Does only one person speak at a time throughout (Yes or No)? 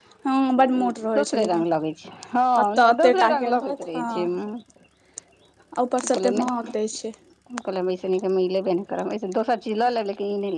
No